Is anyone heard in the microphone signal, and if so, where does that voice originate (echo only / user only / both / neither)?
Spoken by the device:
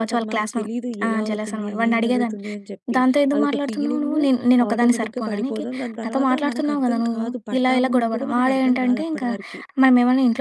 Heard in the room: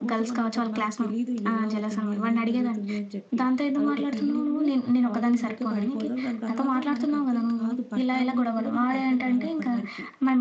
echo only